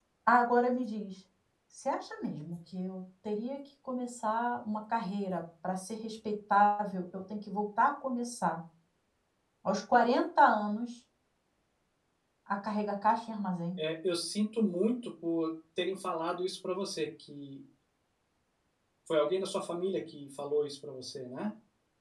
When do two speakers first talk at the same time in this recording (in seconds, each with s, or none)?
none